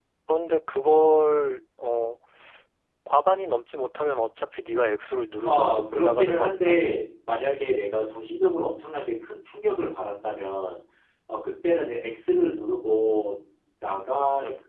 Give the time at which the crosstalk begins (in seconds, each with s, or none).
5.5 s